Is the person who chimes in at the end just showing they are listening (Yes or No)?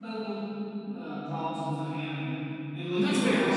Yes